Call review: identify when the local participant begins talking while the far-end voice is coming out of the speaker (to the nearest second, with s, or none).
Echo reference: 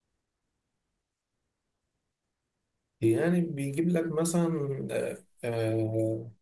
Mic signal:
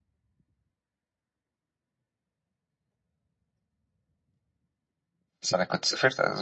5 s